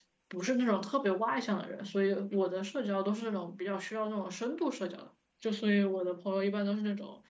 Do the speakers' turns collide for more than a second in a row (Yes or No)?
No